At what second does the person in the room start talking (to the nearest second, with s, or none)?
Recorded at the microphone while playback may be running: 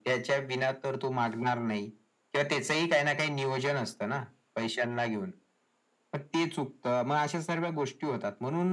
none